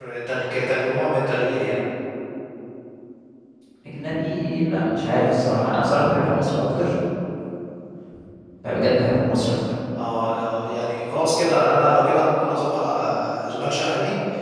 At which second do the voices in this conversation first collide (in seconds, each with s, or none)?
none